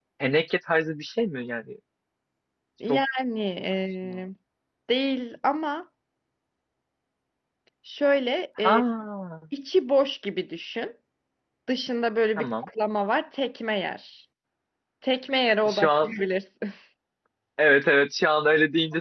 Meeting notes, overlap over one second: none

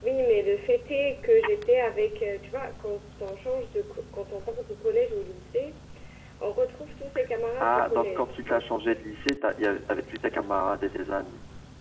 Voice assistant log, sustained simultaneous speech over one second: present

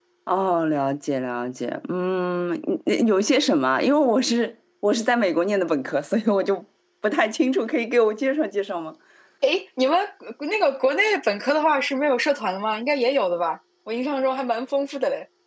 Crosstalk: none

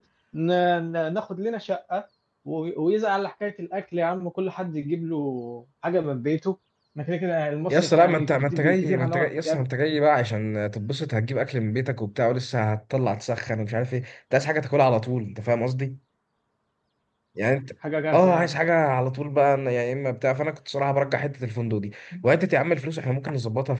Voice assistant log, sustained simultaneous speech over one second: present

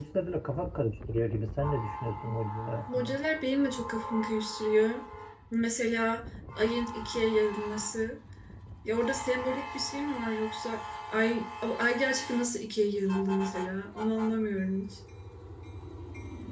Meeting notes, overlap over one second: none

